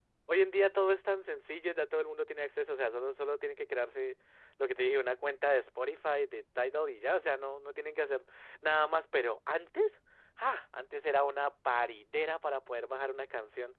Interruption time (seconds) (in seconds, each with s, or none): none